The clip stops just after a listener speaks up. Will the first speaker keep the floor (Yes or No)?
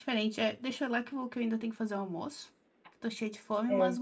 Yes